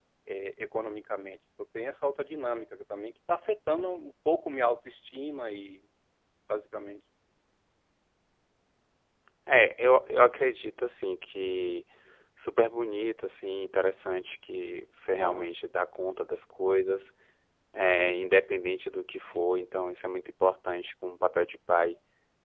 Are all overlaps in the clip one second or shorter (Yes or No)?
Yes